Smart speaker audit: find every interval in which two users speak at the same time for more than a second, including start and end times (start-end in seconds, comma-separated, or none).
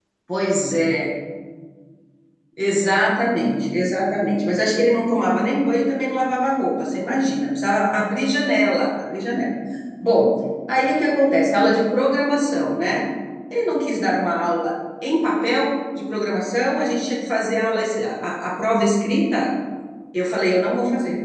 none